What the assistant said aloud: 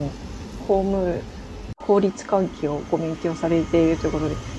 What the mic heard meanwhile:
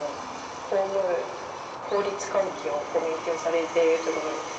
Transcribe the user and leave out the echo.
none

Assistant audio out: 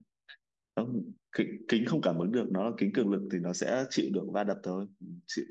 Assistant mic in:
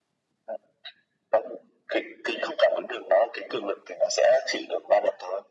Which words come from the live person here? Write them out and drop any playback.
none

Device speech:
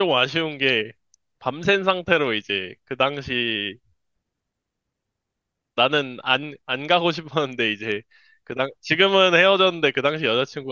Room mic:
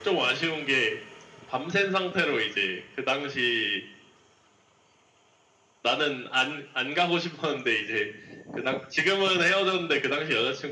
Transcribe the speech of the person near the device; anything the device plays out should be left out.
none

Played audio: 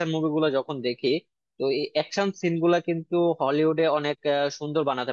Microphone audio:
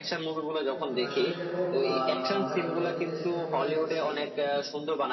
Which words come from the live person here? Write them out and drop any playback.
হ্যাঁ বন্ধু আসলেই দেখো আহ আমরা তো নিজেদের দেশে তো মুভিটাও দেখছি

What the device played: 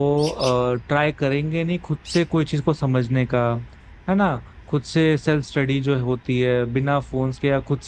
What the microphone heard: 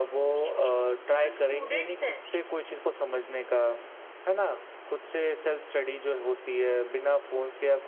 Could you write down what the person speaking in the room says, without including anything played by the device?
तो जो स्टूडेंट्स हैं

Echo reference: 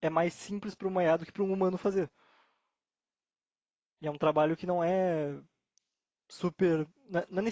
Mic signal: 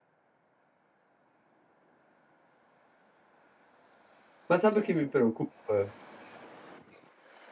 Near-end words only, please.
Mas sabe o que me preocupa?

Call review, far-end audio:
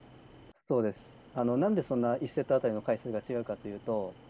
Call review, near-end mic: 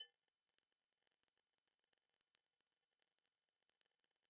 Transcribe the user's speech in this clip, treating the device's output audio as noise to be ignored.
none

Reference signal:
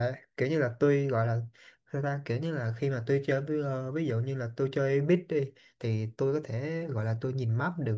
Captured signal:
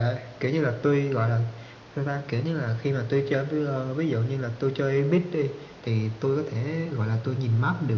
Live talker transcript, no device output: none

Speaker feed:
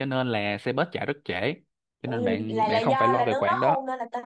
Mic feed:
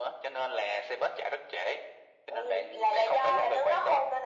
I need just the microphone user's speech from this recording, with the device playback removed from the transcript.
none

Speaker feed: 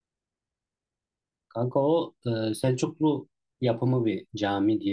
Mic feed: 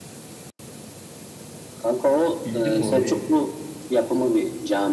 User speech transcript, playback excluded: Bildin mi orayı?

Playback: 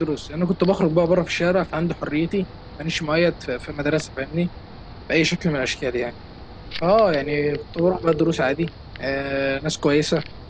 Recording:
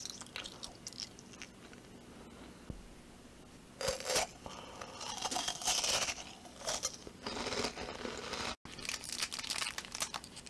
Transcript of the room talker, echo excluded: none

